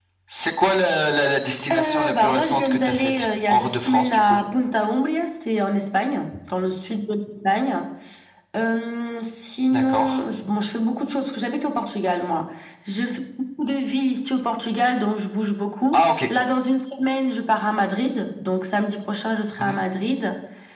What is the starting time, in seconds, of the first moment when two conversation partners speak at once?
1.7 s

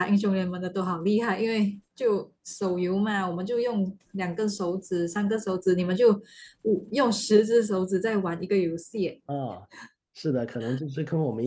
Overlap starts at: none

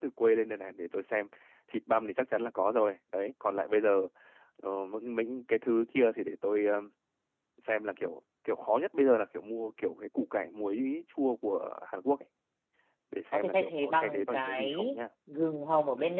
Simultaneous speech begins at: 13.3 s

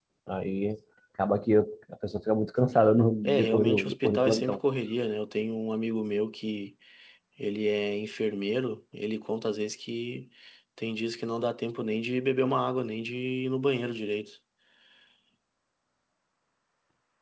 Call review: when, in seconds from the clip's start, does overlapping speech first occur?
3.2 s

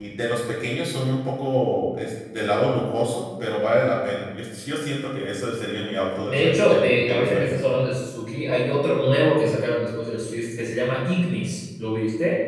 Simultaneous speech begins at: 6.3 s

